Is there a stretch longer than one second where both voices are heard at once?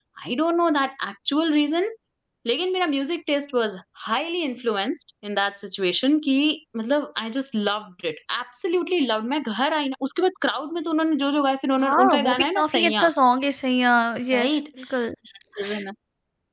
Yes, from 11.8 s

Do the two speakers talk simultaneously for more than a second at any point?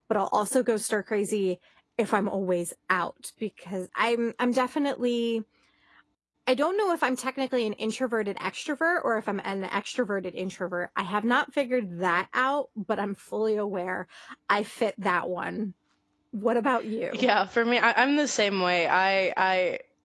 No

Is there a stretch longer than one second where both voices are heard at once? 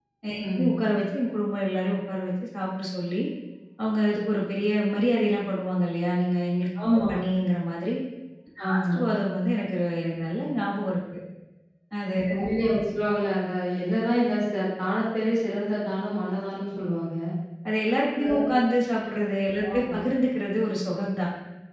No

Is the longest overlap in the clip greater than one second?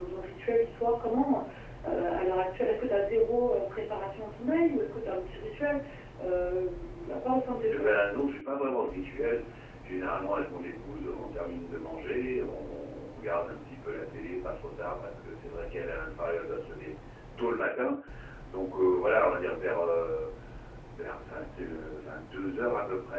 No

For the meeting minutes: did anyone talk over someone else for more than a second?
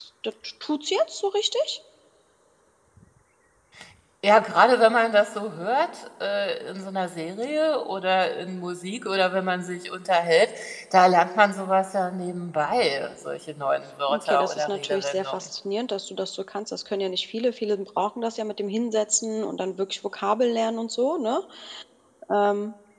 Yes, from 14.1 s

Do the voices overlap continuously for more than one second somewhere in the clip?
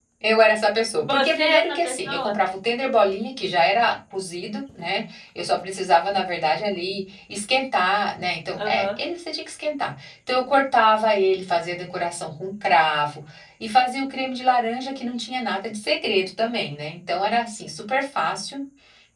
Yes, from 1.1 s

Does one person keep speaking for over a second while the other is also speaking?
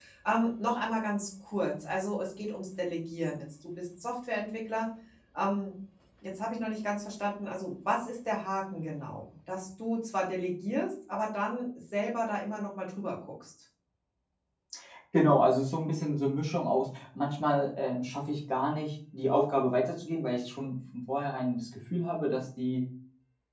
No

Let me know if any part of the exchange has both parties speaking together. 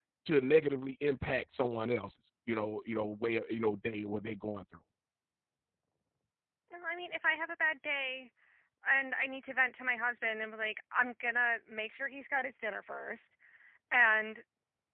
No

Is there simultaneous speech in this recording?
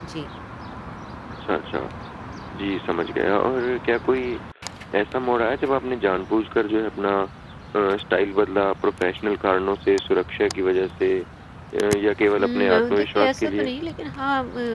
Yes, from 12.4 s

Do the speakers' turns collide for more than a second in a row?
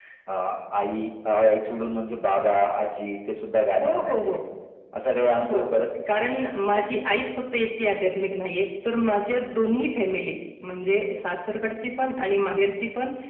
No

